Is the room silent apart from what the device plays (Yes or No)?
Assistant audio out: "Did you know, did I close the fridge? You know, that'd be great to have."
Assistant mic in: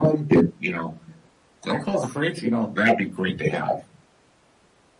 Yes